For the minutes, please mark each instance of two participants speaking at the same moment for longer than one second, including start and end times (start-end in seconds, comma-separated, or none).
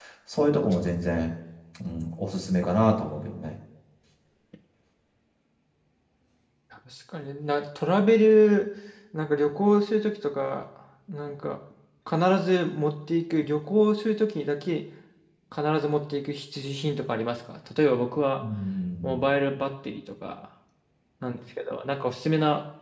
none